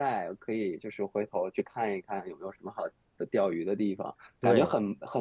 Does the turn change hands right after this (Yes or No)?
No